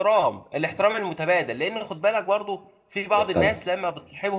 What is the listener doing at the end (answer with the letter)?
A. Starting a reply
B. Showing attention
B